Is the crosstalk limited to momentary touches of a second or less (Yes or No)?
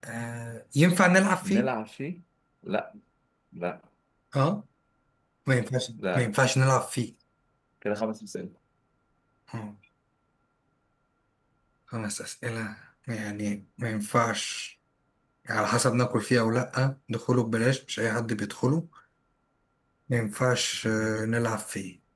Yes